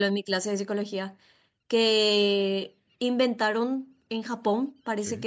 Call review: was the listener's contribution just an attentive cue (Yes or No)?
Yes